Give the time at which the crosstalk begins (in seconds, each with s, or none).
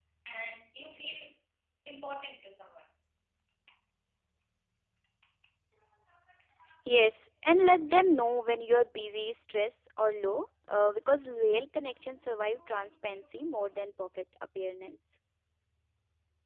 none